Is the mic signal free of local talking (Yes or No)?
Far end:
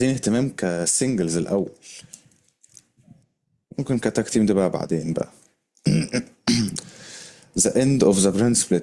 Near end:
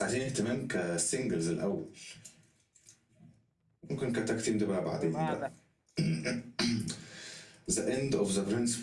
No